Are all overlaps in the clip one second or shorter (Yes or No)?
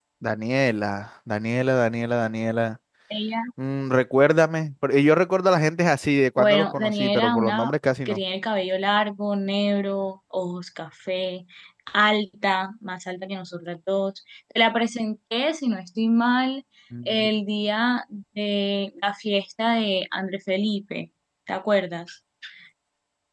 No